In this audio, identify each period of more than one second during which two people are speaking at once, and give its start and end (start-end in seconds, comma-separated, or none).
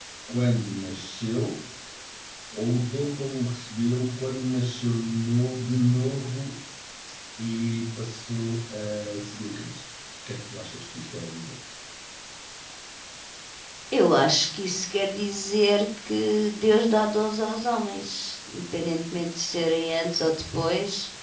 none